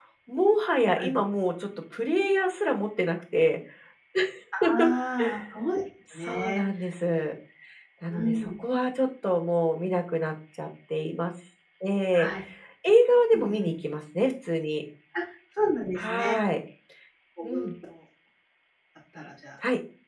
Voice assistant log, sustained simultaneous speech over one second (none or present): none